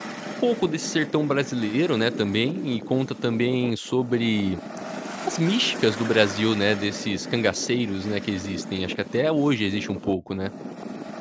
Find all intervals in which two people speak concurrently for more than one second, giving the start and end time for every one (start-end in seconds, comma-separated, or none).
none